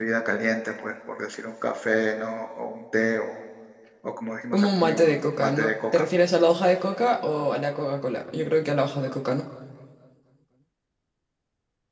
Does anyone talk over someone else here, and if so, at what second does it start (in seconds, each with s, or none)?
4.5 s